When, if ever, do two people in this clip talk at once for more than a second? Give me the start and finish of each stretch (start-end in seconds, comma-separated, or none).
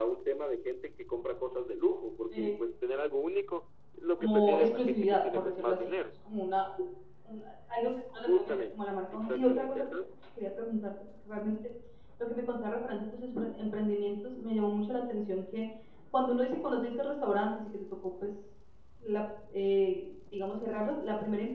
4.2-5.9, 8.1-9.8